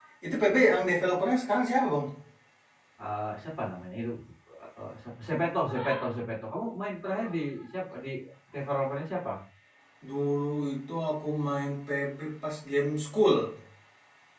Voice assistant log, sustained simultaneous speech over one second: none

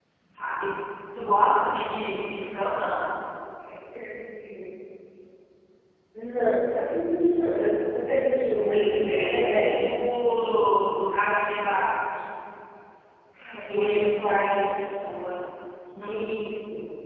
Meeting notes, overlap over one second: present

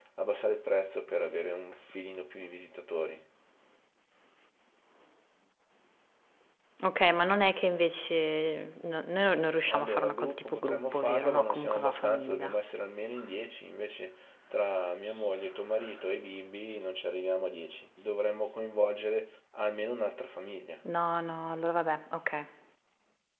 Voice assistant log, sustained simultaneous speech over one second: present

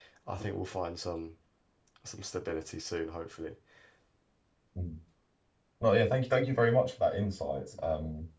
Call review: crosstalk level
none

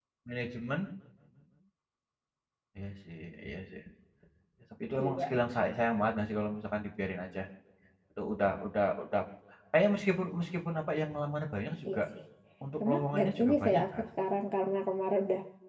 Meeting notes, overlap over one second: present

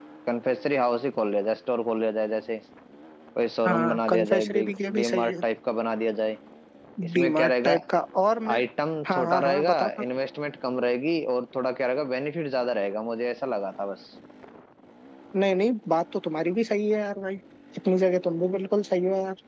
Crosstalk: present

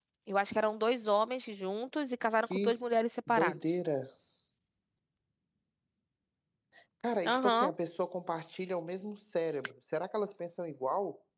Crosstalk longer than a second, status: none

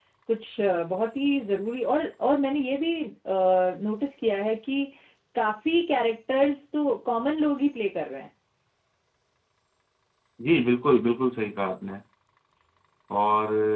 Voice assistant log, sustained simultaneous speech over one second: none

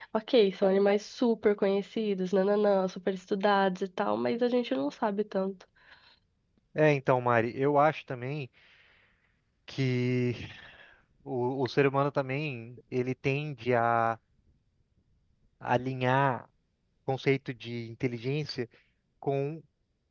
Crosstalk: none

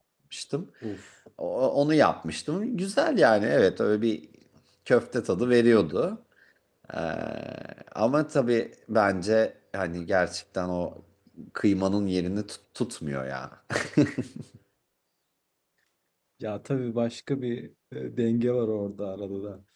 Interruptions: none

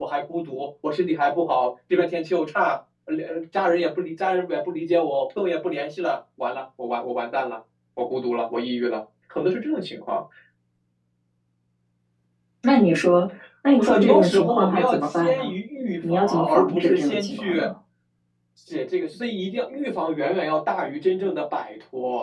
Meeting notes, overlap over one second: present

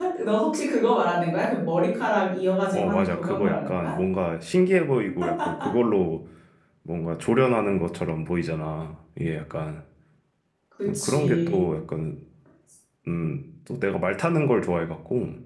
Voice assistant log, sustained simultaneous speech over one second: present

